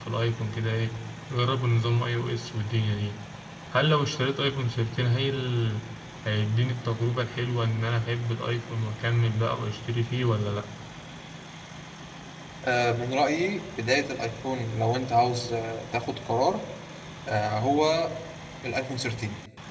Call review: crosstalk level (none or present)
none